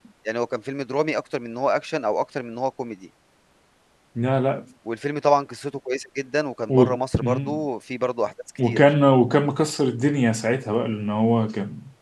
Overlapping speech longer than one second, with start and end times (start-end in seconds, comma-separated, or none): none